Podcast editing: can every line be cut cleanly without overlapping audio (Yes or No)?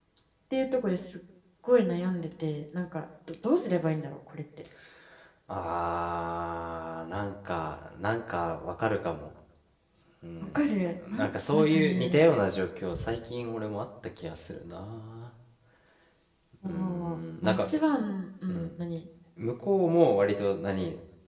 No